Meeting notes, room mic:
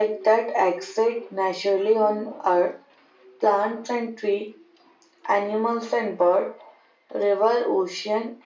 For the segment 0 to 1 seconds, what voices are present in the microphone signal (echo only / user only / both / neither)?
echo only